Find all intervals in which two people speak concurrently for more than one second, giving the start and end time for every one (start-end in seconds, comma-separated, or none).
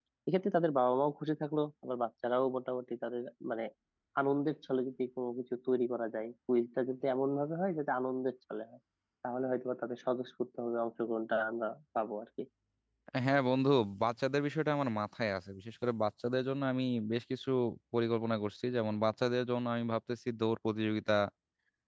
none